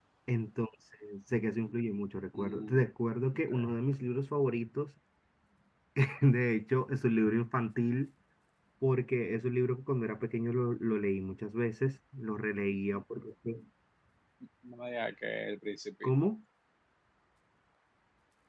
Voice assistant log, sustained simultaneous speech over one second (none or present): none